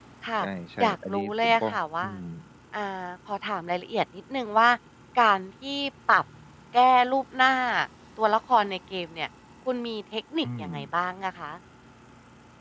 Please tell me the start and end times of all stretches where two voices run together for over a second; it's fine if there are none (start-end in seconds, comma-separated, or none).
0.8-2.1